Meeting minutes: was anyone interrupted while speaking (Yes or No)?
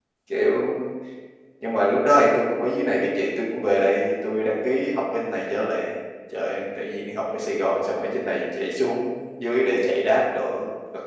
No